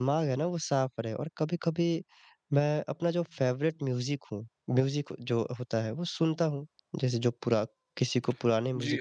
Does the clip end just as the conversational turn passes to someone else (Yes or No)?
Yes